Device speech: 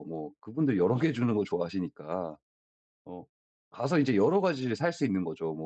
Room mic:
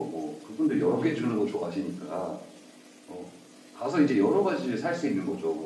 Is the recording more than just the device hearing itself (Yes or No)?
No